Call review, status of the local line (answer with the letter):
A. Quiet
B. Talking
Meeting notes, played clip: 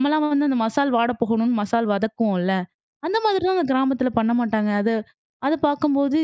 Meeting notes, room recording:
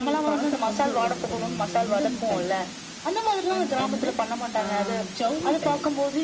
B